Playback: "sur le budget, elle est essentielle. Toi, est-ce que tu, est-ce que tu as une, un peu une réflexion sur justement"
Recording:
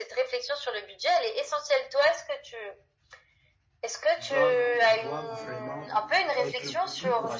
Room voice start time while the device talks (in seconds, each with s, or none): 4.2 s